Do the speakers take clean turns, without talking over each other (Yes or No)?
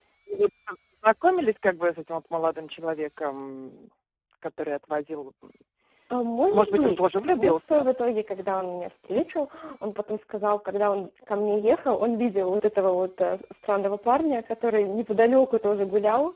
No